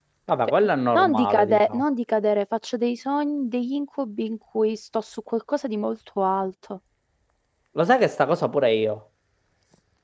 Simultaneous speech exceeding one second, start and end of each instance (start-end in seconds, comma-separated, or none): 0.6-1.8